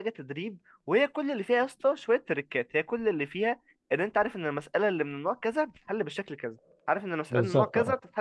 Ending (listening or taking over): listening